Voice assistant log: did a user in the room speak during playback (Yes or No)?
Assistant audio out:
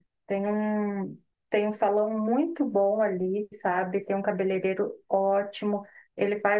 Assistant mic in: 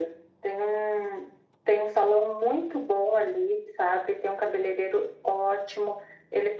No